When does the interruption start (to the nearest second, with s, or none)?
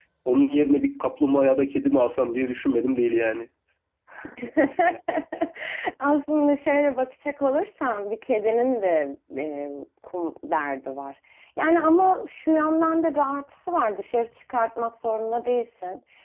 none